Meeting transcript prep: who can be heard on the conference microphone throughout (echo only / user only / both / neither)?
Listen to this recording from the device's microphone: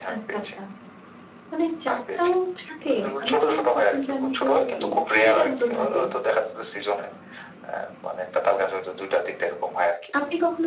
both